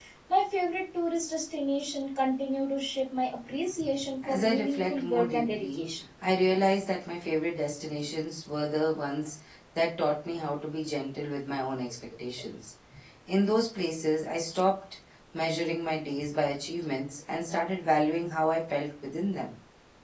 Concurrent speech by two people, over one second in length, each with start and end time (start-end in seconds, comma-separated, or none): 4.3-5.8